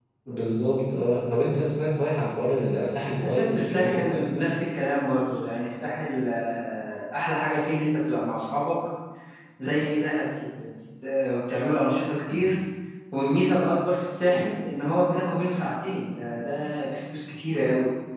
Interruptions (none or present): present